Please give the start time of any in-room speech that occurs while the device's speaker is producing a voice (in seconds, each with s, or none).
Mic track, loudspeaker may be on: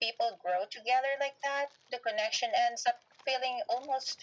none